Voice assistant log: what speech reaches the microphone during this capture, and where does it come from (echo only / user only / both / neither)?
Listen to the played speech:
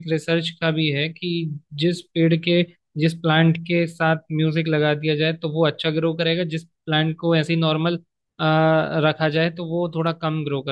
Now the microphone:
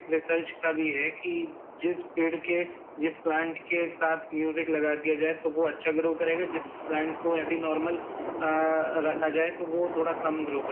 echo only